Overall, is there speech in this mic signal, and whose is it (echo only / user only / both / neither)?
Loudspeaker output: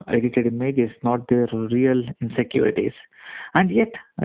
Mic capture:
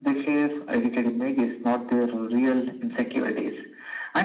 echo only